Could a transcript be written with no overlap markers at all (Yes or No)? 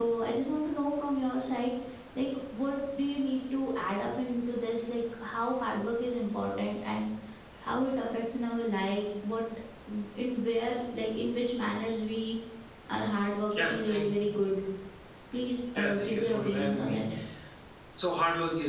No